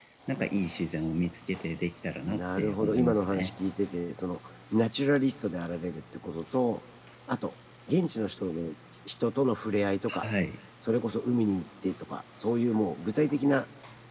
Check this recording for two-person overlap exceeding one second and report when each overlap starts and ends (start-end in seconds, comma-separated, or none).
2.2-3.5